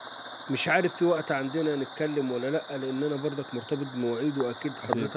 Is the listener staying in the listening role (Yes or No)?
Yes